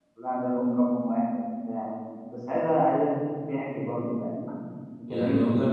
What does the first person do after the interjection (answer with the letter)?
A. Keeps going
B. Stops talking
B